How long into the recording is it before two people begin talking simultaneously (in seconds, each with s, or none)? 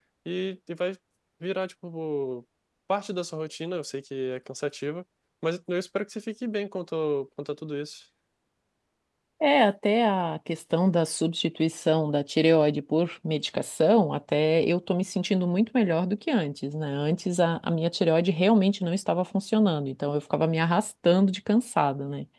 none